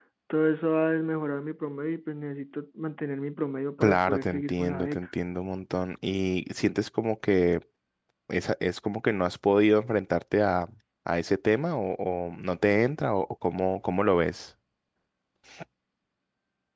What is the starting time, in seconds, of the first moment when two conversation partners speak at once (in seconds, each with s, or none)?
3.8 s